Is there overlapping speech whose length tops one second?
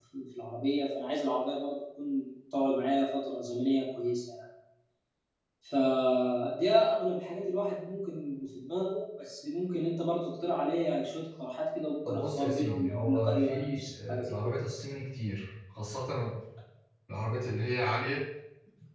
Yes, from 12.1 s

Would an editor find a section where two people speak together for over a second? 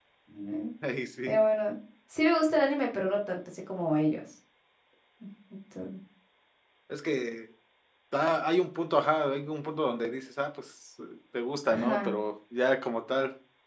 No

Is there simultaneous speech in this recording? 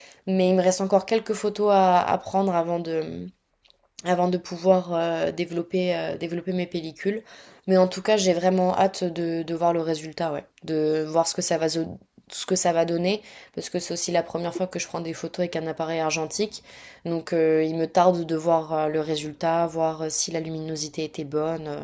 No

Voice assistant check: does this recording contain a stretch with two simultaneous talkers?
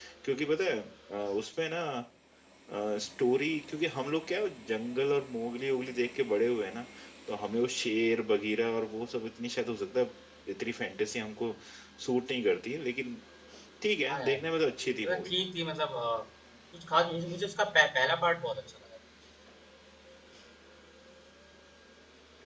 Yes, from 14.1 s

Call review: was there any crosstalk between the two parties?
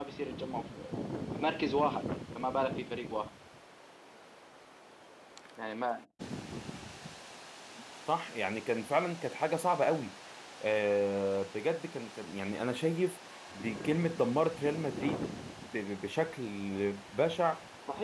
No

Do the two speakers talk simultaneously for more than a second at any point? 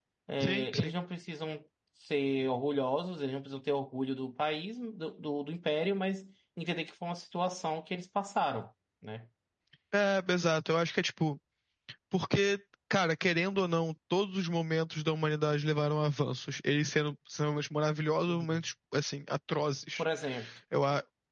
No

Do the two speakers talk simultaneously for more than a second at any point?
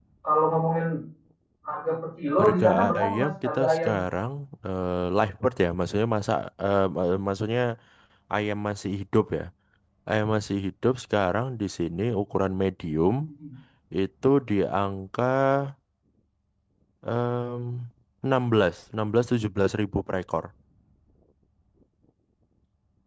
Yes, from 2.4 s

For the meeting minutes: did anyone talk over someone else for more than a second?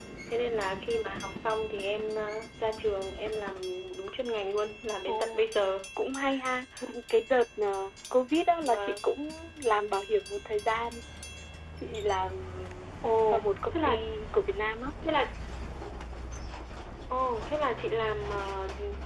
No

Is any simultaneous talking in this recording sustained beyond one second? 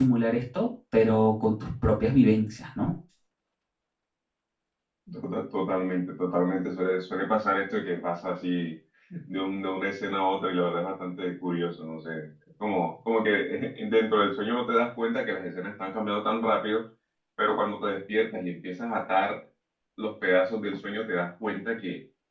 No

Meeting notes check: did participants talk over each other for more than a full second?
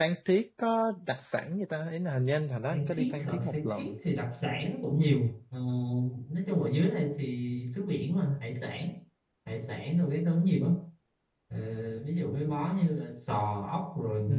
Yes, from 2.7 s

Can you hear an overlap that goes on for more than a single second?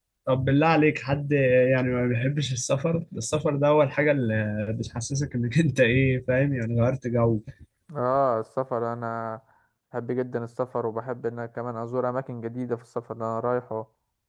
No

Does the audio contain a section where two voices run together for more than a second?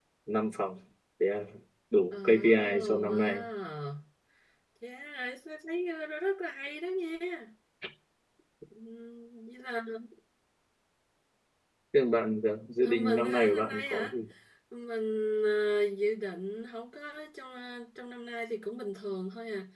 Yes, from 2.1 s

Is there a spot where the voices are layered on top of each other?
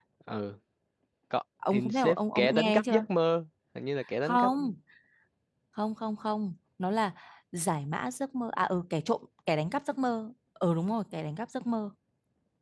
Yes, from 1.7 s

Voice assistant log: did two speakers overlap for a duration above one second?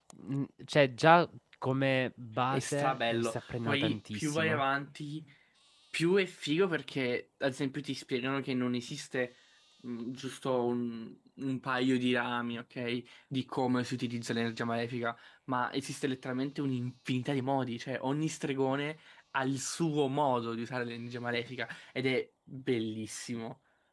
Yes, from 2.5 s

